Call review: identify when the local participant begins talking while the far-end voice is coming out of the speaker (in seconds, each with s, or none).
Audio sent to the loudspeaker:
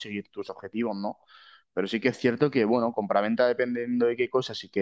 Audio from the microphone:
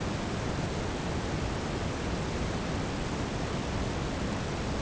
none